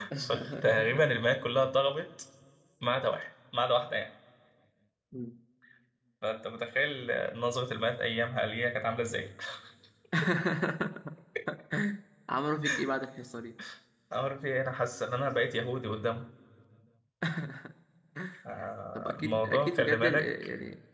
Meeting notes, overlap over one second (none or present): present